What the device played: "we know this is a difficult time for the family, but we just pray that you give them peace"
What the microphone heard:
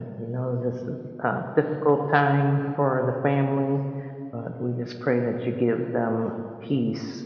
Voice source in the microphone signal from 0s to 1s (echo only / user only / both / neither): echo only